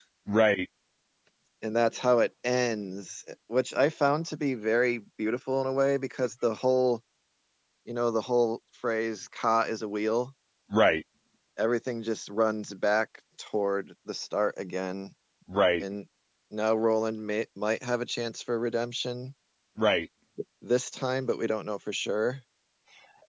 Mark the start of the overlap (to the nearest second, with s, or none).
none